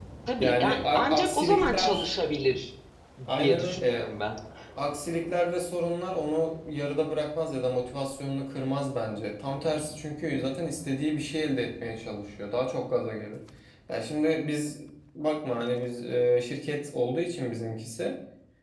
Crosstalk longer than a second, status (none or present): present